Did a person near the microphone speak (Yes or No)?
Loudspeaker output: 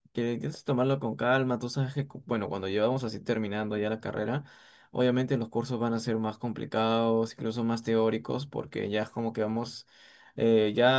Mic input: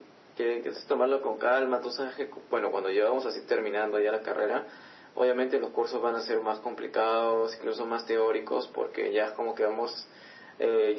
No